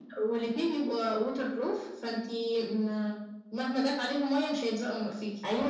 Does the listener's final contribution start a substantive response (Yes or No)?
Yes